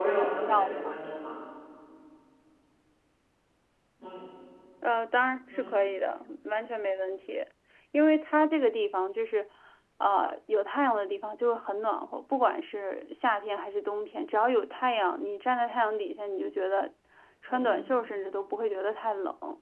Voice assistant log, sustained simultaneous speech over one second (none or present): none